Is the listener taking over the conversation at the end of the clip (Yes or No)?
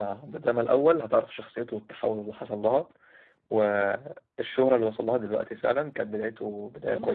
Yes